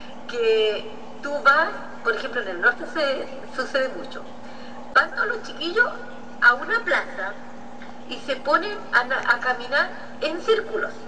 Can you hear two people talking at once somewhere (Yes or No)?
No